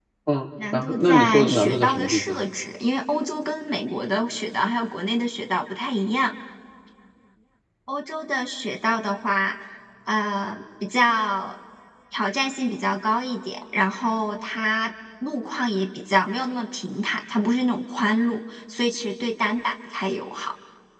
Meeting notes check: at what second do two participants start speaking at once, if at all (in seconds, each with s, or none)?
0.7 s